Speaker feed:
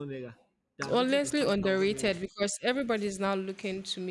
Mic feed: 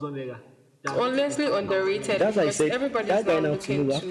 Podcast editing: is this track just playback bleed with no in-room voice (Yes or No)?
No